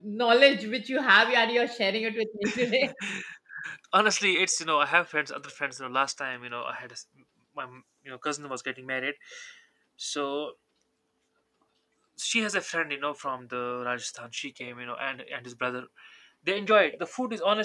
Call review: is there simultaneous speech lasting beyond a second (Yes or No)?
No